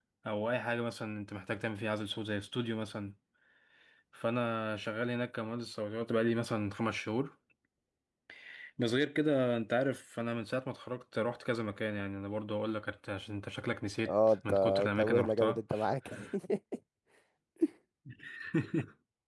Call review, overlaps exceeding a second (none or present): present